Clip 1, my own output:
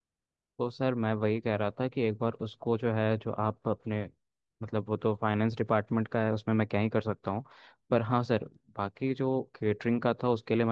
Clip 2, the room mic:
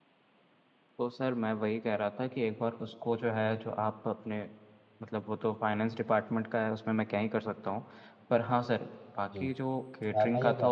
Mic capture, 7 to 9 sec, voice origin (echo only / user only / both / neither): echo only